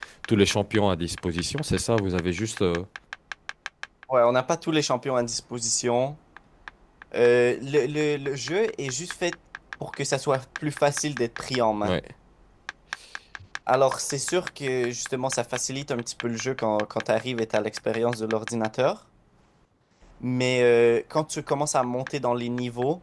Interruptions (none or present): none